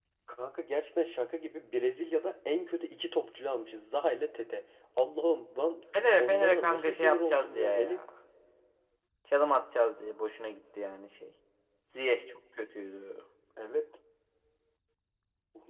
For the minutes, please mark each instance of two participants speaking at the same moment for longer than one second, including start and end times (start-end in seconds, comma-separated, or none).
6.2-8.0